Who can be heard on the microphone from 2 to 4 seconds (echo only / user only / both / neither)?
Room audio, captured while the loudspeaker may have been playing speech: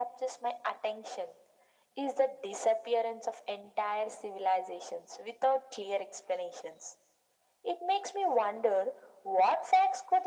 echo only